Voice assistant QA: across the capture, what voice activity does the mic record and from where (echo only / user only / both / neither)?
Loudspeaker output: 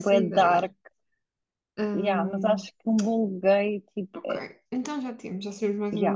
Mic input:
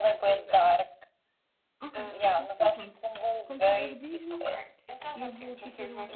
both